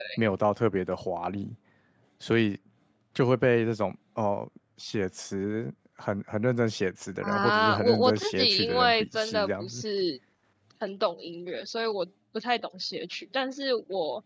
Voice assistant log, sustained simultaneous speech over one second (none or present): present